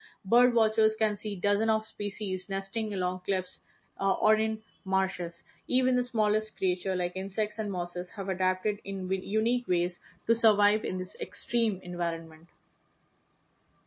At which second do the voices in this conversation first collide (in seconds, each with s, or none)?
none